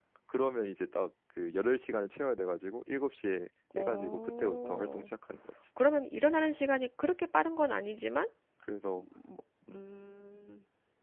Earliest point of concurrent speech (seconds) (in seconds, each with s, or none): 3.8 s